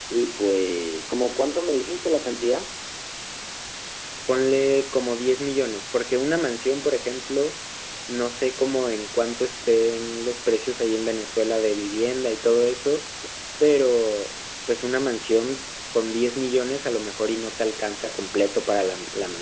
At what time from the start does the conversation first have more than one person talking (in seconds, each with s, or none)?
none